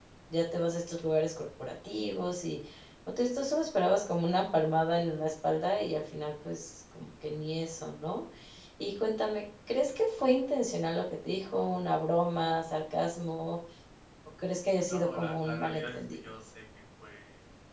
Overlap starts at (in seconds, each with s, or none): 14.9 s